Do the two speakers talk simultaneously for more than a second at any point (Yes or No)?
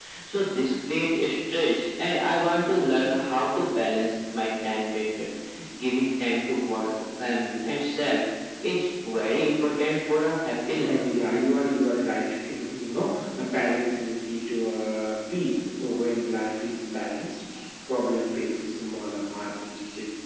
No